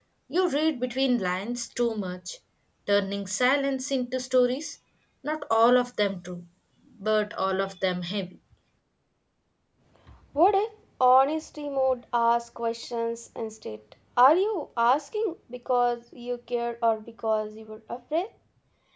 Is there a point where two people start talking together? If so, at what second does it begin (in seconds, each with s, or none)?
none